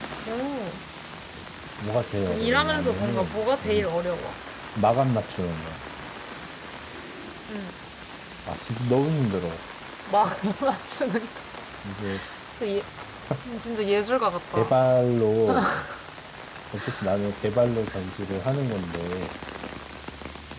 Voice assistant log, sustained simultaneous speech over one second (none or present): present